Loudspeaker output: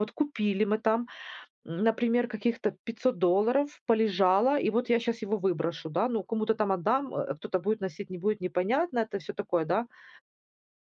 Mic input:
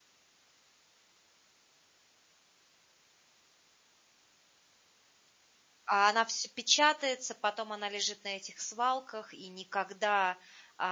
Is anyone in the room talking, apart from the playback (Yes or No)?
Yes